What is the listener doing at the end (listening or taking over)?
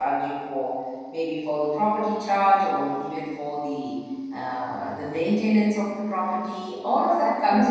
taking over